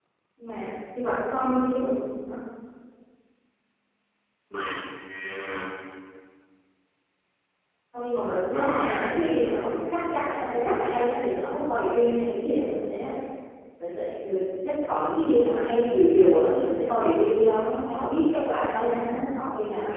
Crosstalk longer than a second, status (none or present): present